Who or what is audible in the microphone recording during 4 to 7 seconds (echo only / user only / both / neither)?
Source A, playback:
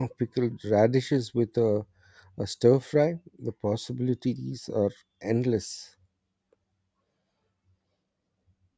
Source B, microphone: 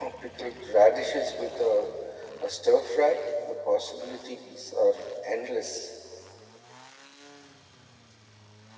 echo only